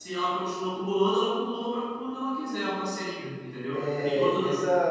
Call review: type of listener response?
taking over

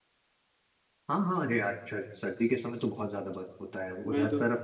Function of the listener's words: listening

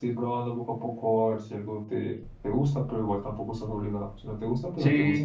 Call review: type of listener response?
taking over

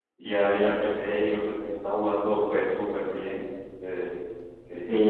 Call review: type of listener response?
taking over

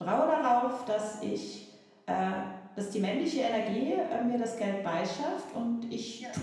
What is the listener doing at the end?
listening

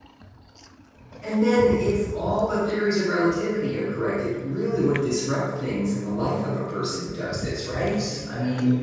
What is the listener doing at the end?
taking over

